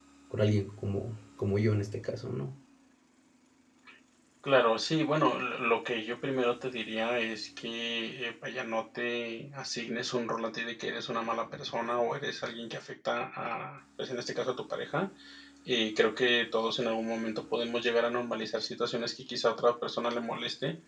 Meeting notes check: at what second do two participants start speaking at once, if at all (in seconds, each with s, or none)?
none